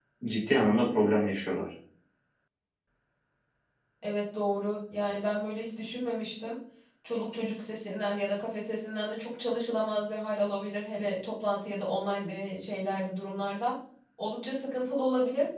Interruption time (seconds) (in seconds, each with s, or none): none